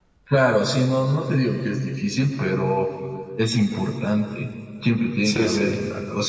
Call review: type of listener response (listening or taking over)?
listening